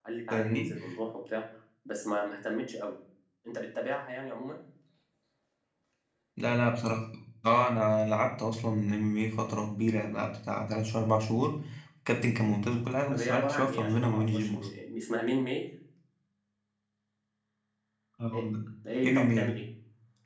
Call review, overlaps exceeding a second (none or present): present